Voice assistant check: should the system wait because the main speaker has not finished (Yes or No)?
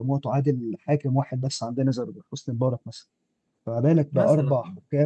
Yes